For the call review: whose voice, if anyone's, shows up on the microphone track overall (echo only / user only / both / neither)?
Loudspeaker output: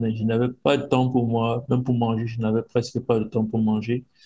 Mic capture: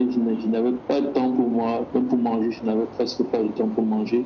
echo only